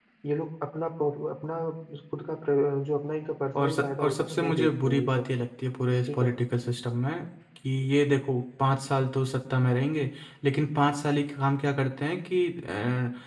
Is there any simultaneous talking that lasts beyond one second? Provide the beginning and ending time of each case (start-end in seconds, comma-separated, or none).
3.6-5.3